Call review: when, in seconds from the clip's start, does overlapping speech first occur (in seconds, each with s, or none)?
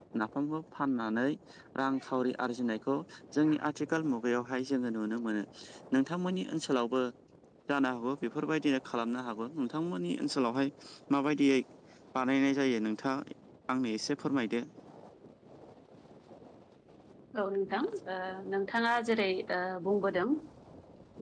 none